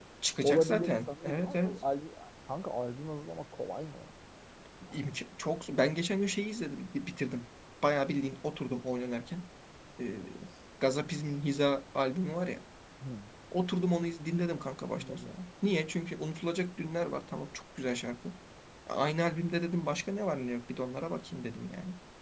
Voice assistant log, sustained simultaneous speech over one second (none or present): present